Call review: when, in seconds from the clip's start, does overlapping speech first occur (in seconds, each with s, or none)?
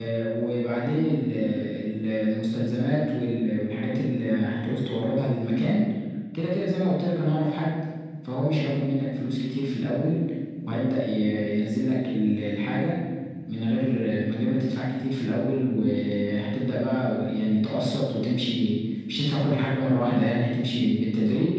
none